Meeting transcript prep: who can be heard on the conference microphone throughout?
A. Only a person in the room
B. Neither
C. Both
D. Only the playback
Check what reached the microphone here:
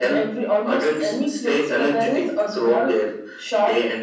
D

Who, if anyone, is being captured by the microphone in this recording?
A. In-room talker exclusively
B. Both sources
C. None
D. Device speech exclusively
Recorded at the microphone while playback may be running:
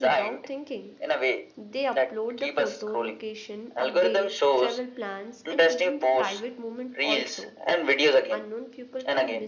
B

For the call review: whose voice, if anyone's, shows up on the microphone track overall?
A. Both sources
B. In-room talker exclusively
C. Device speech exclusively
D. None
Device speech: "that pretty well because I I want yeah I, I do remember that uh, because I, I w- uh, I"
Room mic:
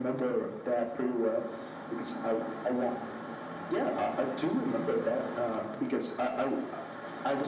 C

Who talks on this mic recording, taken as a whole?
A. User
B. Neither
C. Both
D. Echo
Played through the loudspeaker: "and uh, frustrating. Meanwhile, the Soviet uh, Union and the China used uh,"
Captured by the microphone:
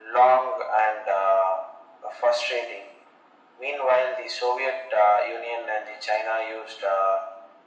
D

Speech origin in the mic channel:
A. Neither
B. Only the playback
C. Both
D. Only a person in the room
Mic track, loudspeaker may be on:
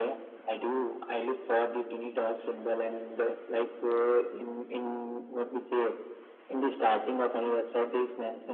B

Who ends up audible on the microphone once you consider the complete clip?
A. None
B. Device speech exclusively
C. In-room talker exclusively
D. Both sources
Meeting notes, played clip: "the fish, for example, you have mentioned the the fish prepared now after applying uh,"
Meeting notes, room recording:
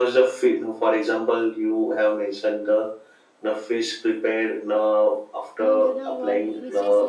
D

